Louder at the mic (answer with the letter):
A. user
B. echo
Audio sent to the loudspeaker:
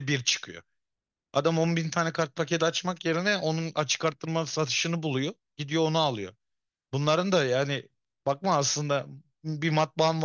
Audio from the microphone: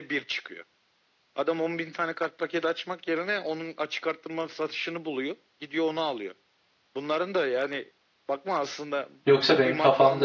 A